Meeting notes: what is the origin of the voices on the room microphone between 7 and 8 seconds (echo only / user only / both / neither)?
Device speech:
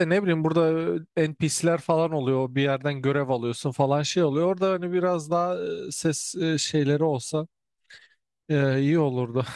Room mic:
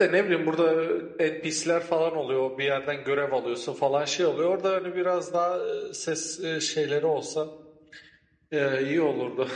echo only